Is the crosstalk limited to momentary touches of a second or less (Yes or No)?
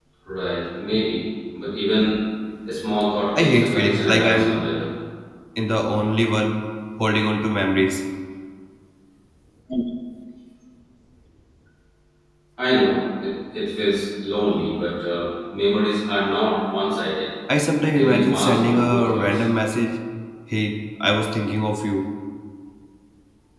No